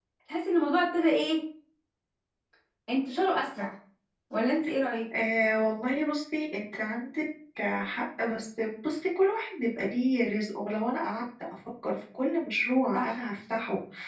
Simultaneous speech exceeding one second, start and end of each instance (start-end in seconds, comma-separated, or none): none